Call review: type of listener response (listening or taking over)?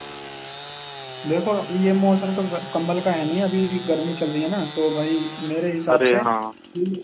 listening